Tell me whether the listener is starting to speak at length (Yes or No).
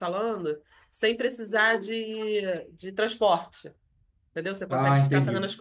No